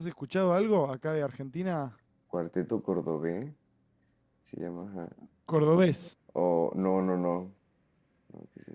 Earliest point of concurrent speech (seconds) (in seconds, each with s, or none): none